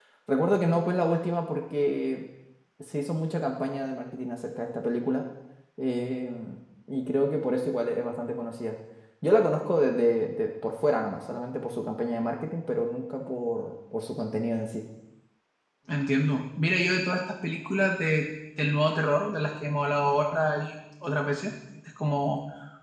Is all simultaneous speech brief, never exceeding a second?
Yes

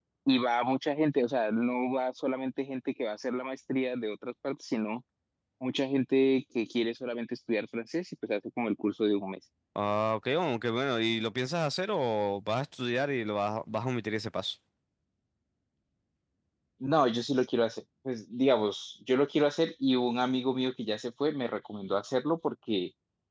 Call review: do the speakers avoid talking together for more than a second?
Yes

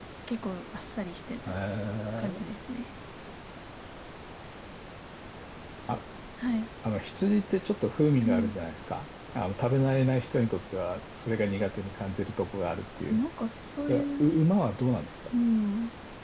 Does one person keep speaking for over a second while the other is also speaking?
No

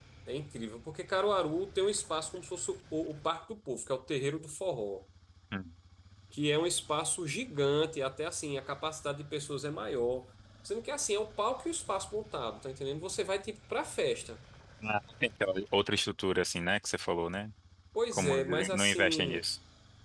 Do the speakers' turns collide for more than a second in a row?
Yes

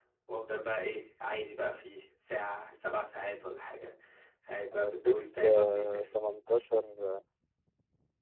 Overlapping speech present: Yes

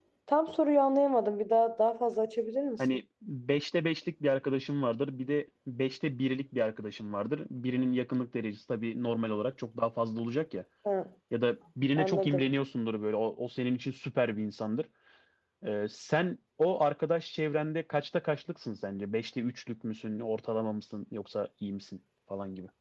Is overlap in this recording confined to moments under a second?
Yes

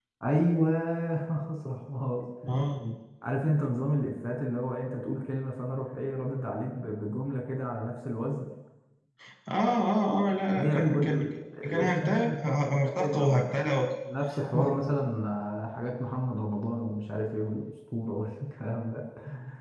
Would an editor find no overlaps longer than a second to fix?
No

